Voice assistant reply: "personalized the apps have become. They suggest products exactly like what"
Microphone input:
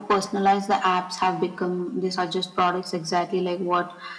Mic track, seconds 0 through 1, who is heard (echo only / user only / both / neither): echo only